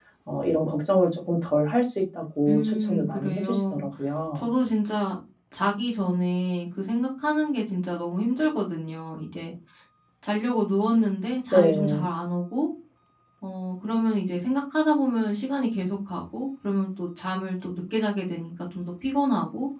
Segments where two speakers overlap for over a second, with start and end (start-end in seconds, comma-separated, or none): 2.5-3.8